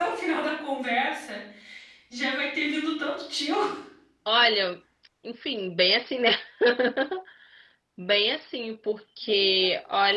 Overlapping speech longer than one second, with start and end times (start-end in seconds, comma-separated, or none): none